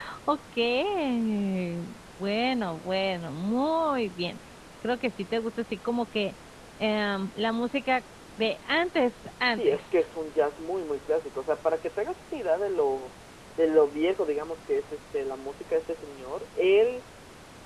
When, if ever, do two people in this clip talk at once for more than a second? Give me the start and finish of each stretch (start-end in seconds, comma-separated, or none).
none